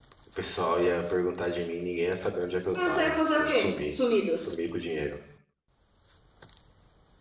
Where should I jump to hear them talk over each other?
2.8 s

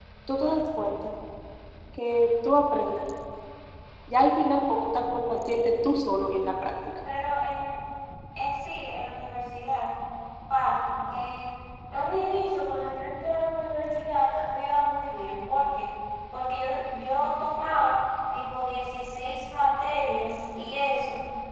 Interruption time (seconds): none

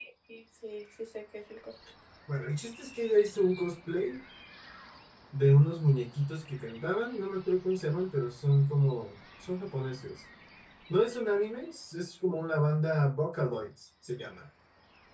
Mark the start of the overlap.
none

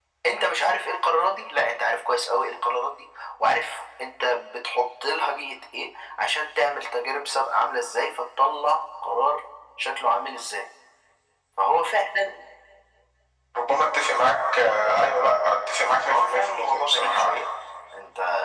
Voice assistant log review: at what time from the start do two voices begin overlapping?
16.0 s

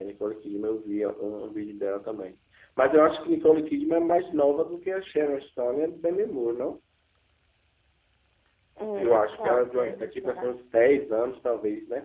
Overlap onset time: 9.0 s

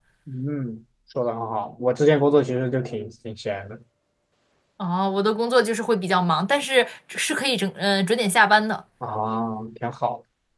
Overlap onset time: none

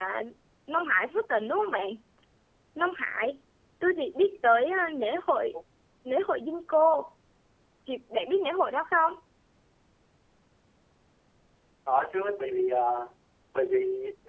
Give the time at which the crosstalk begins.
none

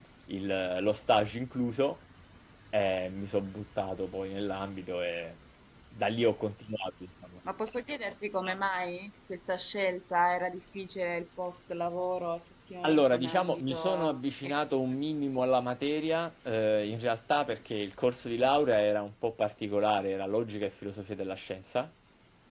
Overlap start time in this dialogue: 12.8 s

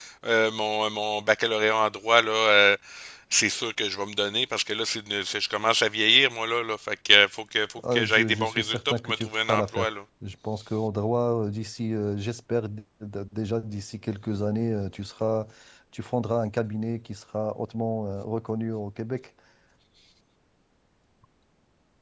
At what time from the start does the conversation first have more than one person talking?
7.8 s

